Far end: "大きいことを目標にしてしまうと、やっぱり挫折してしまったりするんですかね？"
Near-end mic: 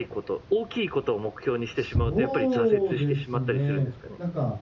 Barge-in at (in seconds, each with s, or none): 1.7 s